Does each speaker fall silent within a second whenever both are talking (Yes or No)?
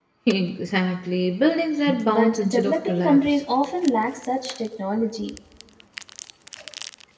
No